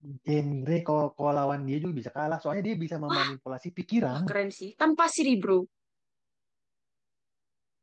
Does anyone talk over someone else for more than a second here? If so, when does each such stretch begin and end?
none

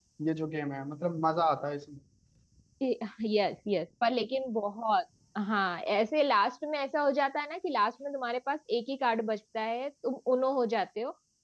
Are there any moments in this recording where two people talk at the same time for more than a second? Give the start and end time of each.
none

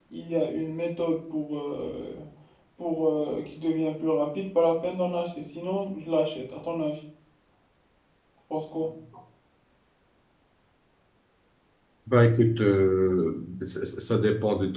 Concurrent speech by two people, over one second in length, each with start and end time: none

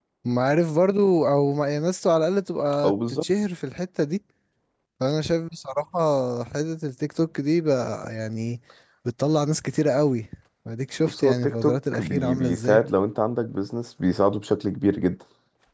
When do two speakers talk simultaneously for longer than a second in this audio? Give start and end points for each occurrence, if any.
11.1-12.8

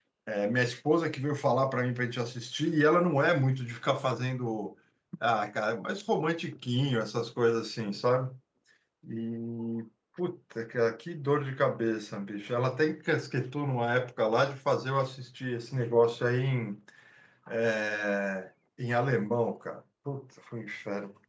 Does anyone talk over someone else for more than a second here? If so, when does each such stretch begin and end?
none

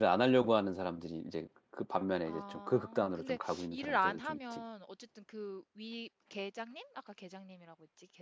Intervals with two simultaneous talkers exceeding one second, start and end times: 2.2-4.6

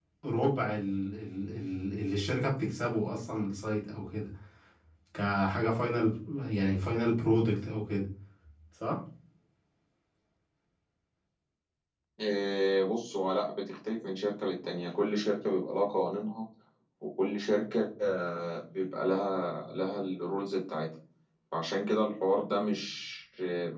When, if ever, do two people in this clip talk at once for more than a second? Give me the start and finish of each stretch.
none

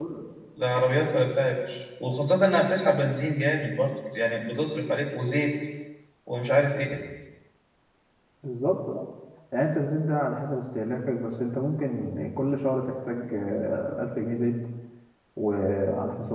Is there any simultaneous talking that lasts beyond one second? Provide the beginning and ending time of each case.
none

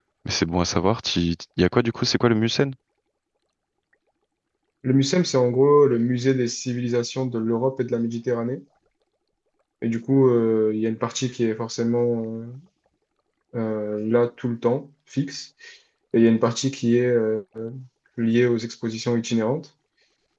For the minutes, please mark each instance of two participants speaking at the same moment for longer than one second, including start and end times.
none

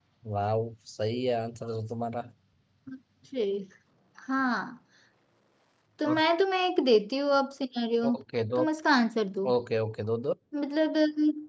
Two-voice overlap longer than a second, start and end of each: none

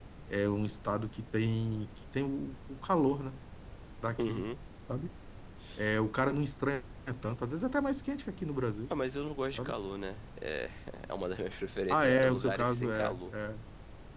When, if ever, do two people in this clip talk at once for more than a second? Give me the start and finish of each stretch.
11.9-13.2

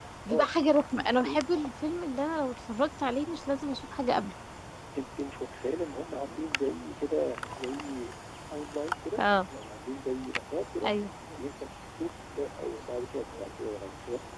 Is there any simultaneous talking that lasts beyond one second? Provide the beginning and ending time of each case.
none

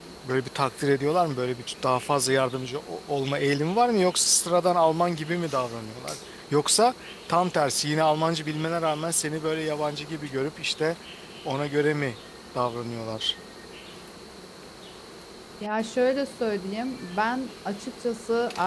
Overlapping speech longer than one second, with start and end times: none

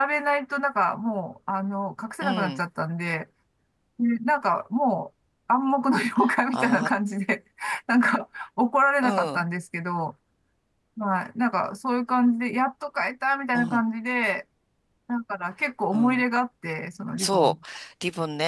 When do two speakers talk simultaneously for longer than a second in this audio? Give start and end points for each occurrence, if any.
none

